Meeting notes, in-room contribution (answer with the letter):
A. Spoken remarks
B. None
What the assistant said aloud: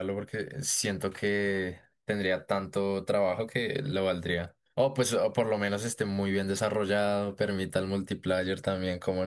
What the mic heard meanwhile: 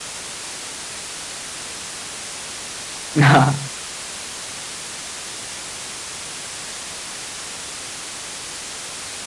A